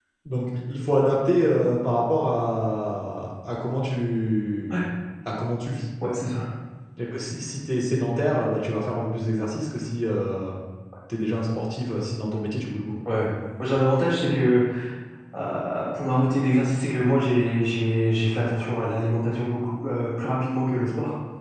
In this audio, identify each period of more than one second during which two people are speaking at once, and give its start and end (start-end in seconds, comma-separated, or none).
none